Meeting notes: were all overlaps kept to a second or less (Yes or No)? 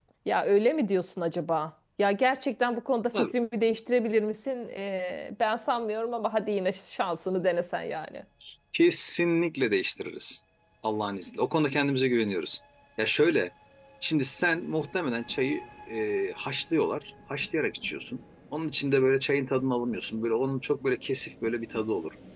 Yes